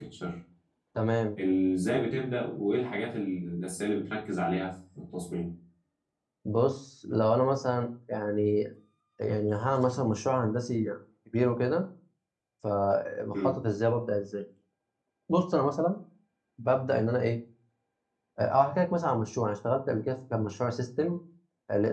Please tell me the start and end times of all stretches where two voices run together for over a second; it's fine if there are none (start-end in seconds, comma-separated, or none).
none